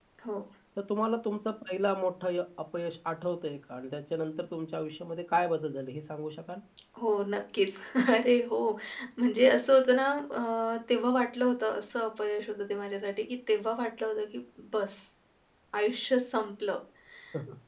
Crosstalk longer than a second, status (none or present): none